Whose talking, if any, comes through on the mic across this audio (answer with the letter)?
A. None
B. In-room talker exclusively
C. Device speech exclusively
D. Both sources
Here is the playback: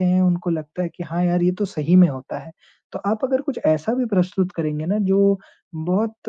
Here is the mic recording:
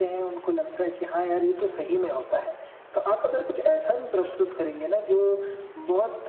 C